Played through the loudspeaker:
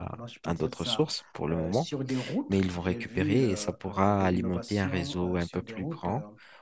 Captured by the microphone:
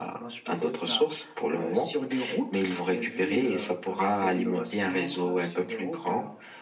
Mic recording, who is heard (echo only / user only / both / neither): echo only